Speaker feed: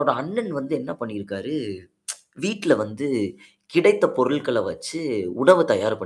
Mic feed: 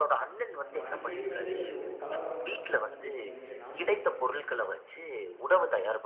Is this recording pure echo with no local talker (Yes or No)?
No